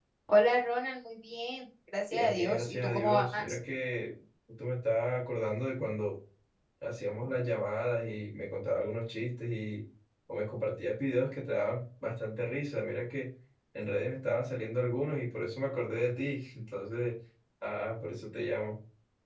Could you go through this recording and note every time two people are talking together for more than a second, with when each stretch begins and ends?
2.1-3.6

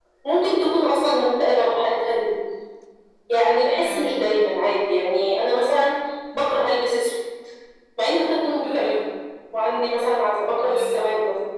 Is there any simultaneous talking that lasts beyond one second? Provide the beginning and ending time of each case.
none

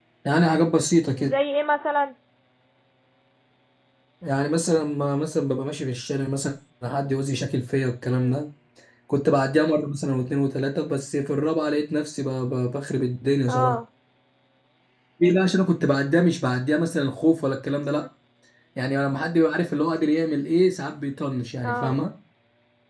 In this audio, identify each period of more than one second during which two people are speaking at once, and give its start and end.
none

